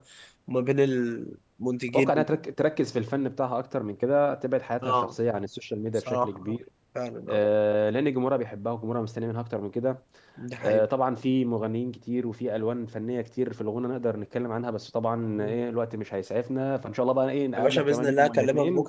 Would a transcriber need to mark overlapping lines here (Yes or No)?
Yes